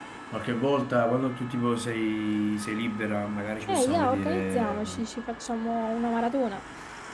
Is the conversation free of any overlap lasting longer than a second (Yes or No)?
No